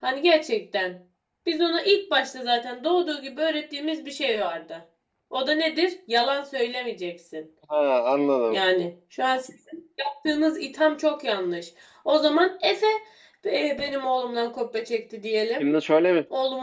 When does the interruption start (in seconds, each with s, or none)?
none